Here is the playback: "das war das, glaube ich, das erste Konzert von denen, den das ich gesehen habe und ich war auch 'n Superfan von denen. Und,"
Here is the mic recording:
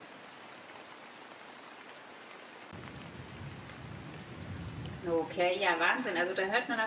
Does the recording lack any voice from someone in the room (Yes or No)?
No